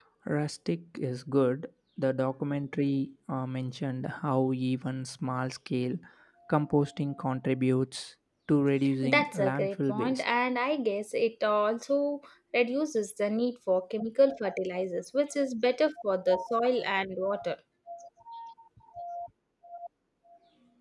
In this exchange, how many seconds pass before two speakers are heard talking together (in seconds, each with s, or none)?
9.0 s